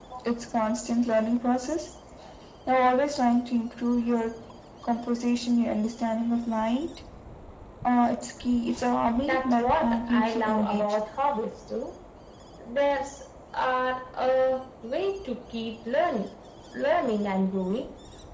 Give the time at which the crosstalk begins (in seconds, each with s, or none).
9.2 s